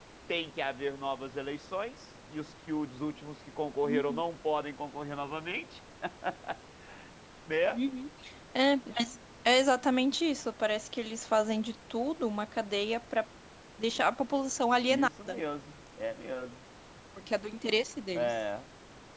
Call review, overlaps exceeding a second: none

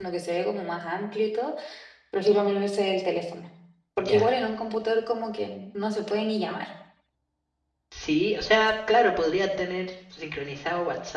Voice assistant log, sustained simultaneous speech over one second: none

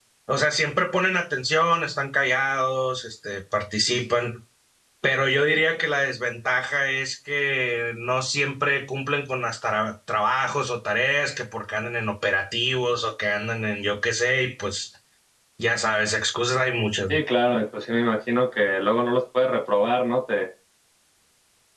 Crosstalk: none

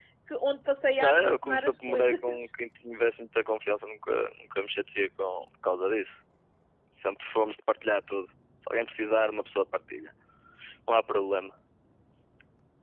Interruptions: present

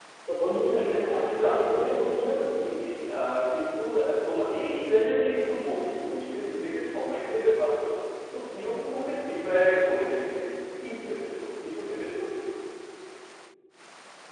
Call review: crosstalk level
present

